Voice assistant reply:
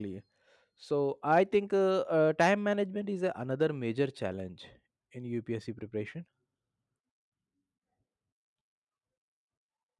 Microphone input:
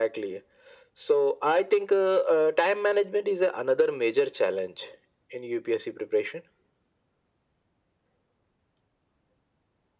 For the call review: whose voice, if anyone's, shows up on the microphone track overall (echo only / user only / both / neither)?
echo only